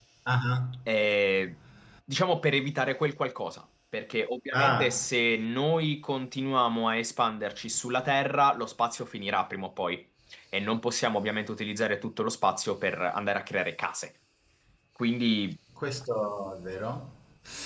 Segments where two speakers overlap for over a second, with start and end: none

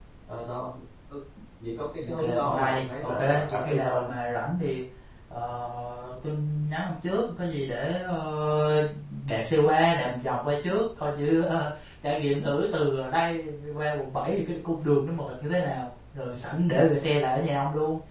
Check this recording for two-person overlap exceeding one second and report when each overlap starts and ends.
2.0-4.1

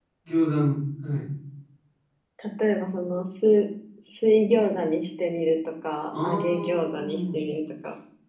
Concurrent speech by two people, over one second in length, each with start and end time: 6.1-7.4

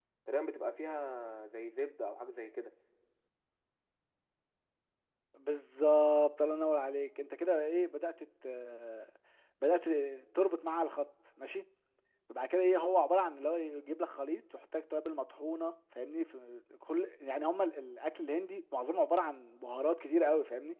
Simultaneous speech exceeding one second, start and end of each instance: none

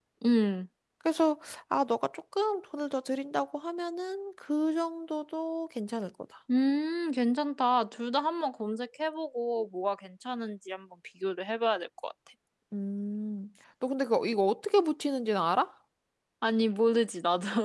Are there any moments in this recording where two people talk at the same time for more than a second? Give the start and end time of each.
none

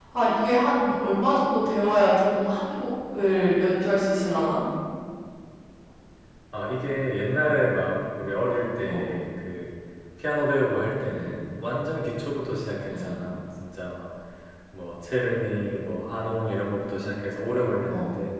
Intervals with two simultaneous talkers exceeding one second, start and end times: none

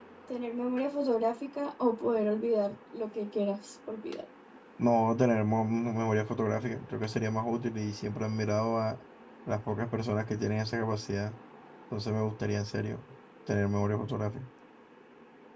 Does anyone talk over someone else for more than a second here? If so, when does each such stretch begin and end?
none

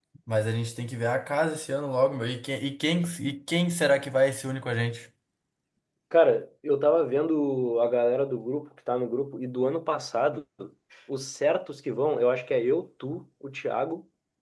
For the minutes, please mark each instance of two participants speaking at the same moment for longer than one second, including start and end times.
none

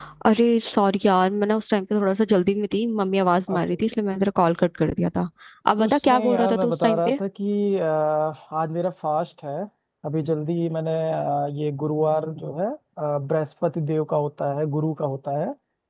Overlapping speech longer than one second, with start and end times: 5.8-7.2

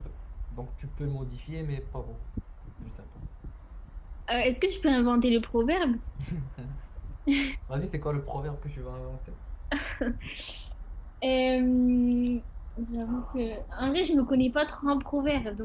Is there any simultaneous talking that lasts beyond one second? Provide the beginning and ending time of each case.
none

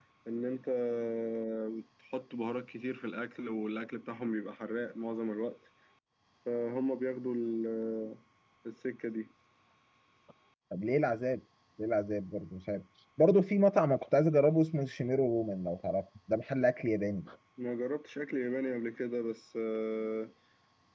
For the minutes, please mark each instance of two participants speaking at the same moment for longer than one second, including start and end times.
none

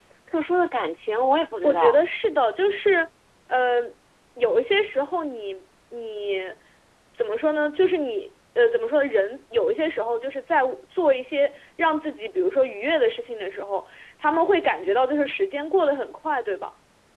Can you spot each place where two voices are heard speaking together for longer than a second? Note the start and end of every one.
none

